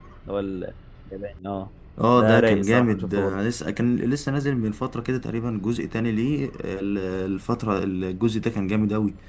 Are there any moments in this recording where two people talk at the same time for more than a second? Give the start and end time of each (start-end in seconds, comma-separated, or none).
2.1-3.4